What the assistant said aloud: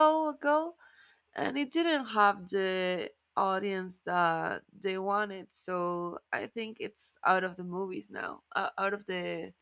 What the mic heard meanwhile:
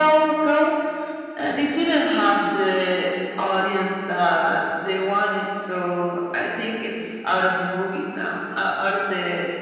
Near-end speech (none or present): none